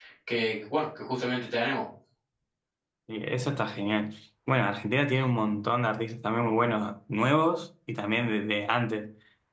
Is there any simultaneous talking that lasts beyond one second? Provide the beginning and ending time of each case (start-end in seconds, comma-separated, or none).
none